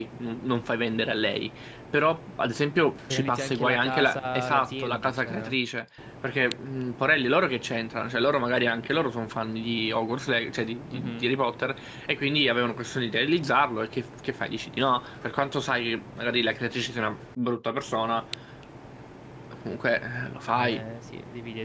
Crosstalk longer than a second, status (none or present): present